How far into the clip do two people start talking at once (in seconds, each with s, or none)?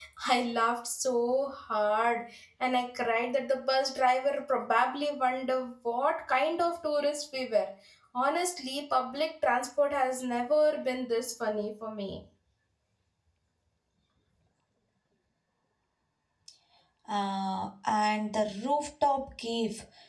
none